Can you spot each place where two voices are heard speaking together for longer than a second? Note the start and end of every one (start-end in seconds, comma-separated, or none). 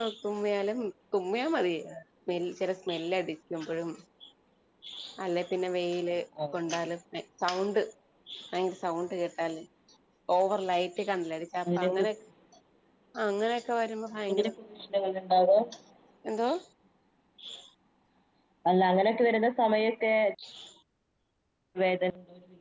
none